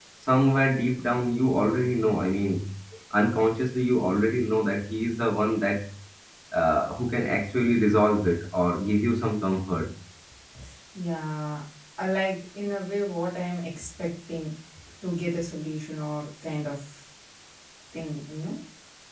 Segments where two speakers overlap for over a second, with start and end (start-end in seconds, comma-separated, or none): none